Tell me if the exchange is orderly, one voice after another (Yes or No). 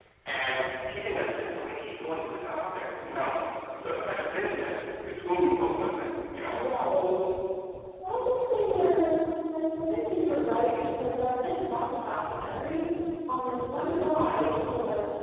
Yes